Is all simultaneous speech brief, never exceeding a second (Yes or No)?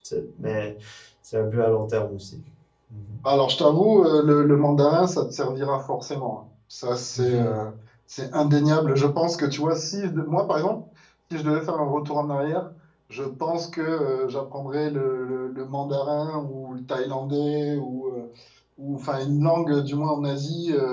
Yes